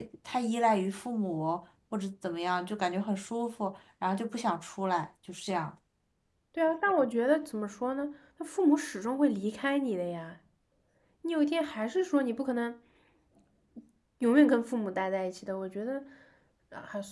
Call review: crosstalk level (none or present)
none